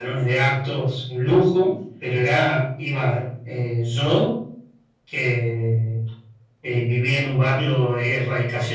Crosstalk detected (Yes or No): No